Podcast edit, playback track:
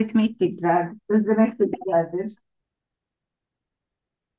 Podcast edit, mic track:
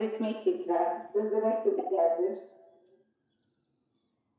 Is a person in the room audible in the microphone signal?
No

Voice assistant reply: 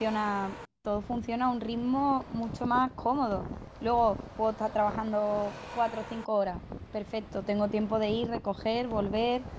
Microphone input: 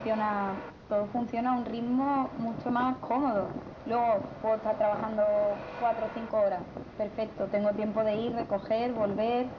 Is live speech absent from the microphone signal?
Yes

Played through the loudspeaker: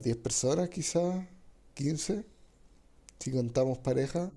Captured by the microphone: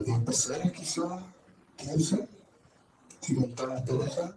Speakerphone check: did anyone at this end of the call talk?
No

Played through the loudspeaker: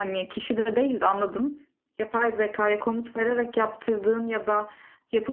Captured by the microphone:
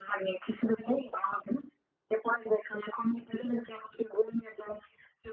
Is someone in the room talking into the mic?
No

